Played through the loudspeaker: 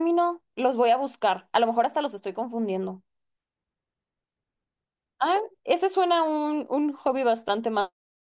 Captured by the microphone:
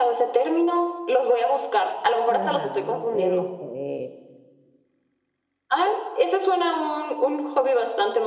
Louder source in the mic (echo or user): echo